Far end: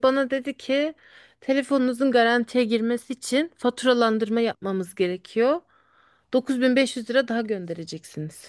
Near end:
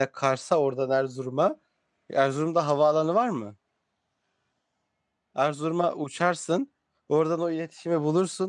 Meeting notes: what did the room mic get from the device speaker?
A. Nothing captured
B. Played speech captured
A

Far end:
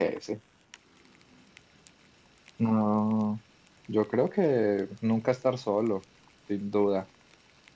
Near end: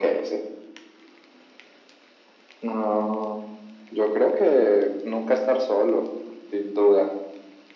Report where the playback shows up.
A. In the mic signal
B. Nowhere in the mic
A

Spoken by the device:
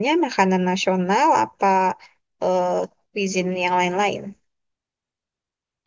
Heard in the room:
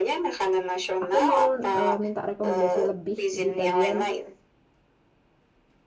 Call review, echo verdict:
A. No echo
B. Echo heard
B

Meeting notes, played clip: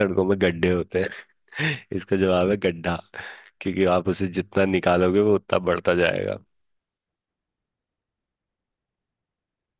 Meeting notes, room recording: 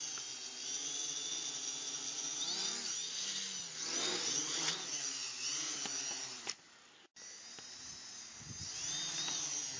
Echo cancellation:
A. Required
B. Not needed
B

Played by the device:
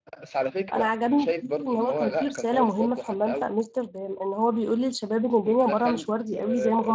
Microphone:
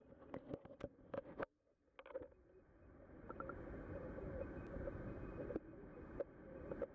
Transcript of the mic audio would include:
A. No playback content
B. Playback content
A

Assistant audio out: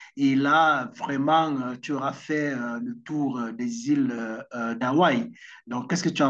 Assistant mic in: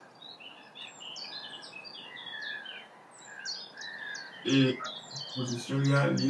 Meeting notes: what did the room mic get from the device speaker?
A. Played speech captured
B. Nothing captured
B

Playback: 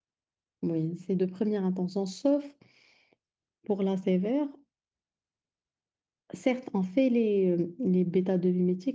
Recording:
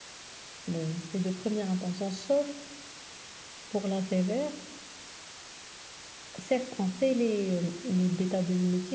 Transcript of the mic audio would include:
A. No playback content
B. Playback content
B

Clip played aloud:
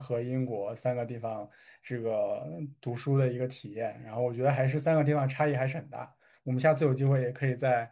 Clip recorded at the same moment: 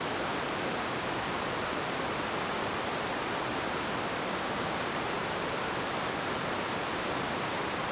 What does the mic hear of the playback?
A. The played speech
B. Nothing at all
B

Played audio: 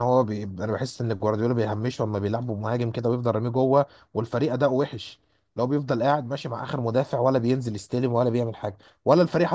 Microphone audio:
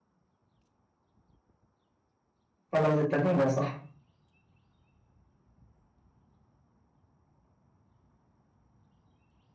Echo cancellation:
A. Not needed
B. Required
A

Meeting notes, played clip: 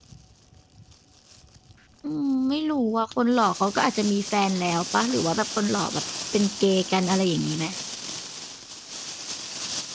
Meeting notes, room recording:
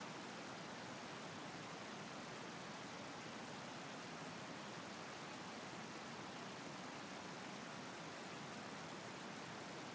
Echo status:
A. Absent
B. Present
A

